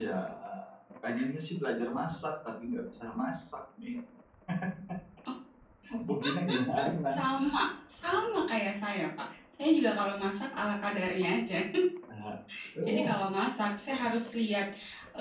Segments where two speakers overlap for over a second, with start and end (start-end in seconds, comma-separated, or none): none